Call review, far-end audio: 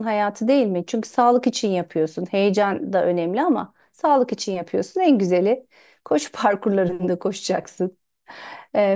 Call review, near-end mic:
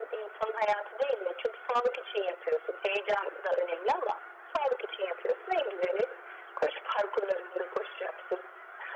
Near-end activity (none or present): none